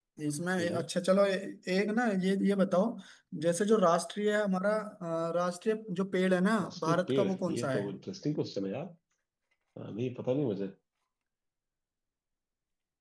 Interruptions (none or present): present